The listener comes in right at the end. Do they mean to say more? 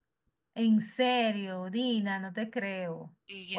Yes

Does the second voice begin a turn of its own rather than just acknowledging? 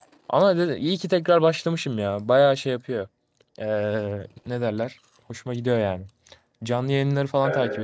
No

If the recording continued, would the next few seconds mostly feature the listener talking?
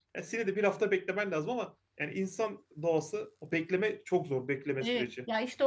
Yes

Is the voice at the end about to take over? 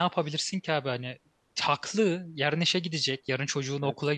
No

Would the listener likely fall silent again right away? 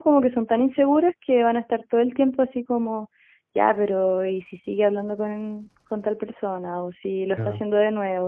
Yes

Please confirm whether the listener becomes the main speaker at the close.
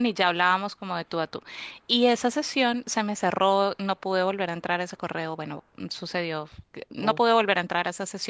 No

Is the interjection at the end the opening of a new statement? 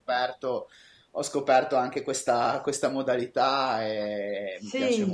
Yes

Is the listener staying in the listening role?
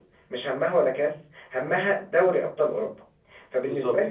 Yes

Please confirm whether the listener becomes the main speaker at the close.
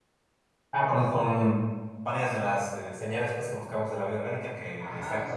Yes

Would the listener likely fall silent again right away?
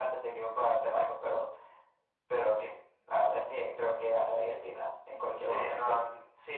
No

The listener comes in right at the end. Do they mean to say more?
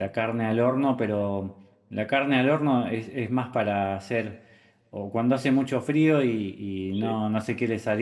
No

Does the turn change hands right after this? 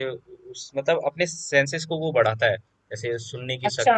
Yes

